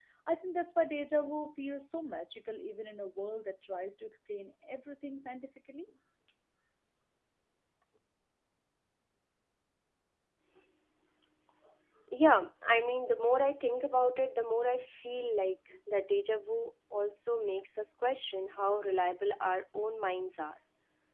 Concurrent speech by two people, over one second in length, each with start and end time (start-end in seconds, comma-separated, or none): none